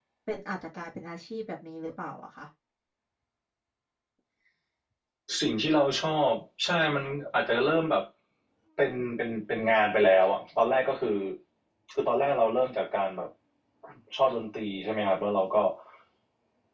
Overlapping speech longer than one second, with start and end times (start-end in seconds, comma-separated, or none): none